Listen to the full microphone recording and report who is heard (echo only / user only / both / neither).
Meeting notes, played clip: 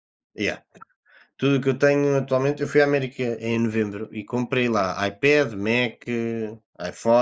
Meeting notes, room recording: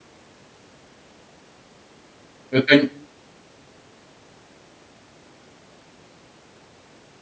user only